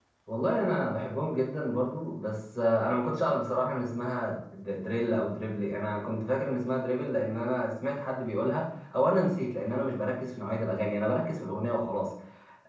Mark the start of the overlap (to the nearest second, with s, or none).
none